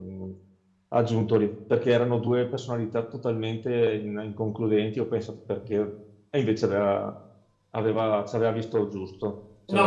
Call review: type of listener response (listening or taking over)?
taking over